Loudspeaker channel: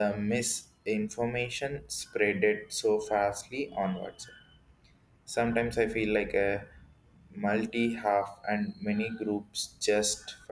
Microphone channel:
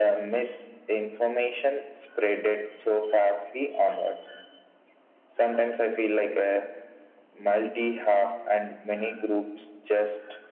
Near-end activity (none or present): none